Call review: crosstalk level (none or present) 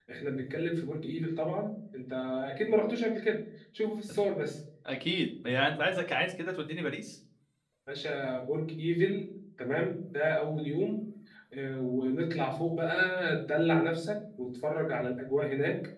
none